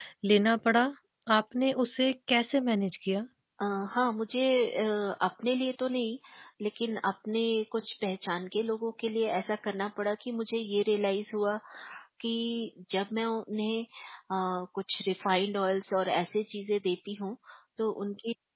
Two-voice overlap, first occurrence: none

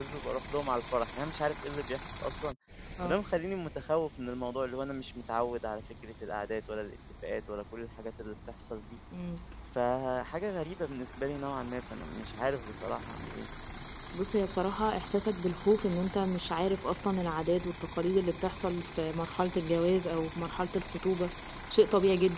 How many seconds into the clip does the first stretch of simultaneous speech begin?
none

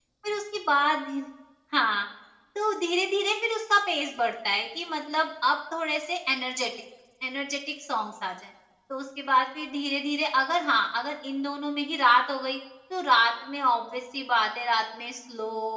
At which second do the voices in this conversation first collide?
none

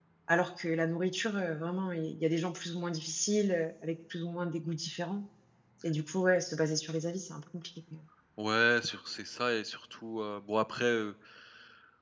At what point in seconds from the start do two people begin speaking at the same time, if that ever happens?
none

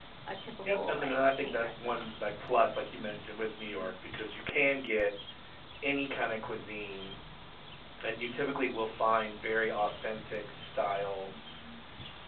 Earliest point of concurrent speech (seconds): 0.7 s

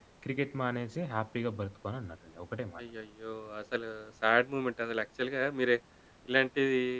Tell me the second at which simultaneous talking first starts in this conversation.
none

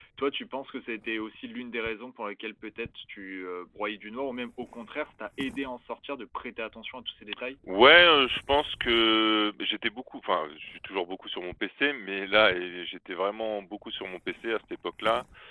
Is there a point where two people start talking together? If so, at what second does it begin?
none

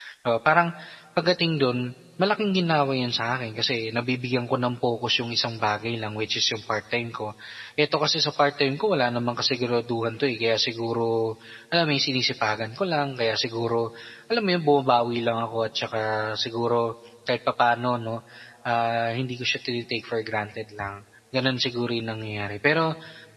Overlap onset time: none

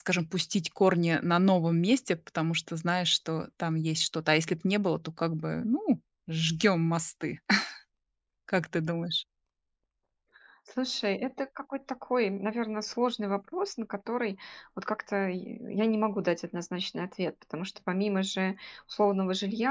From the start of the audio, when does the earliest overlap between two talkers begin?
none

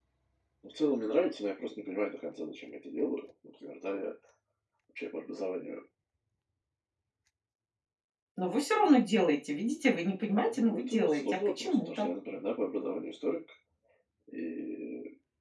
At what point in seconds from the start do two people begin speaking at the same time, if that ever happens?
10.1 s

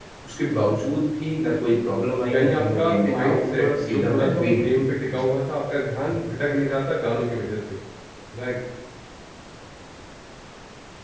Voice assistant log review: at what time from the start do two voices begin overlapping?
2.3 s

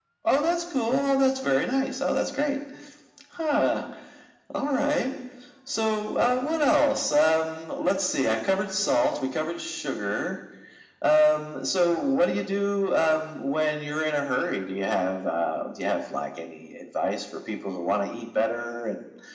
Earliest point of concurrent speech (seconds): none

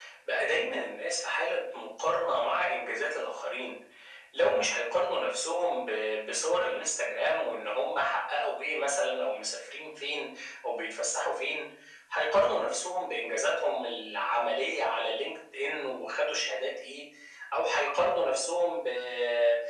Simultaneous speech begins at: none

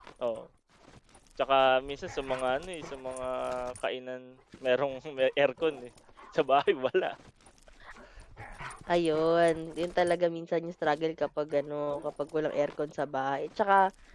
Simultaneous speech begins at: none

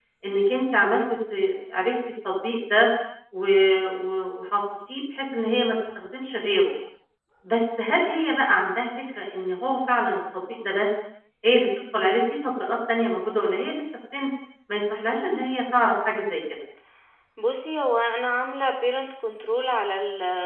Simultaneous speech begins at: none

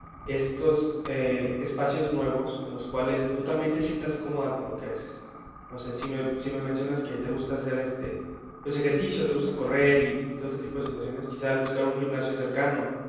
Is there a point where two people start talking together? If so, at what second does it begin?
none

